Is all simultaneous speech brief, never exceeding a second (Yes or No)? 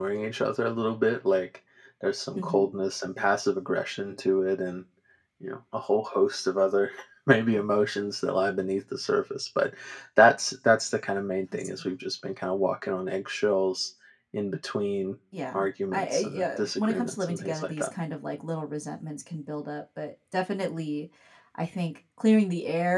No